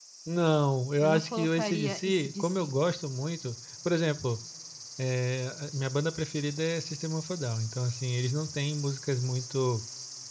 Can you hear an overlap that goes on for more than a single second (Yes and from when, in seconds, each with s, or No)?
Yes, from 1.0 s